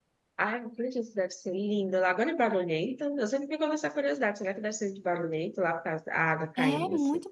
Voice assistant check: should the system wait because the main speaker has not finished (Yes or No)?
No